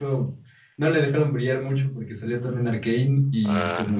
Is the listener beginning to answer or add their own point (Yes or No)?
No